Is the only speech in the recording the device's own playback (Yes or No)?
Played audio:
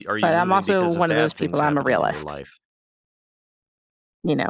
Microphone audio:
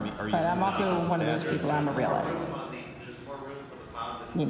No